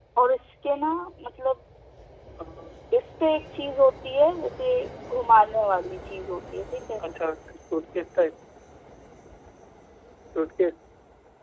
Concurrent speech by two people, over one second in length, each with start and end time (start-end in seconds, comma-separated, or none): none